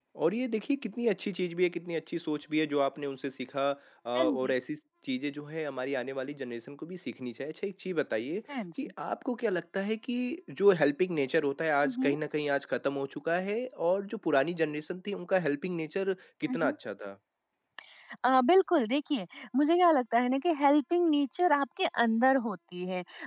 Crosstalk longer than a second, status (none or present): none